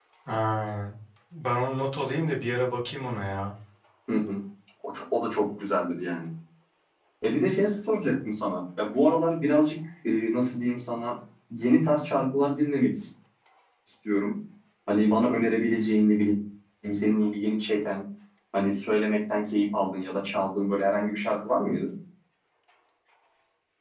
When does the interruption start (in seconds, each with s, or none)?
none